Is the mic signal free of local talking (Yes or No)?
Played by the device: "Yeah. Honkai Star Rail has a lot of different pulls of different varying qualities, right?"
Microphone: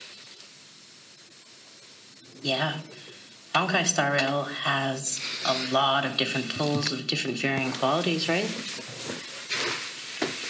Yes